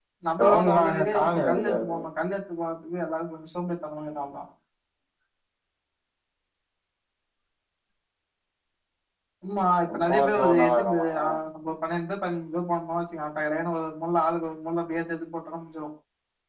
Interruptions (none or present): present